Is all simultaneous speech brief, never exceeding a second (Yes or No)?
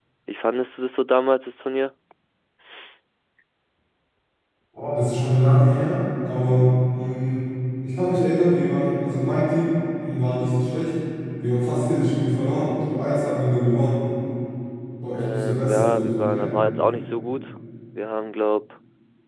No